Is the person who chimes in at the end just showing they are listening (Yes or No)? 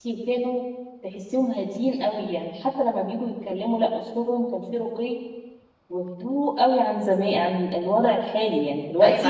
No